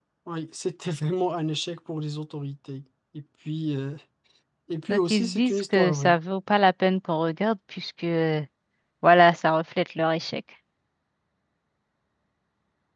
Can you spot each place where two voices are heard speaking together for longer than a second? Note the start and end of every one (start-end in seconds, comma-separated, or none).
4.9-6.1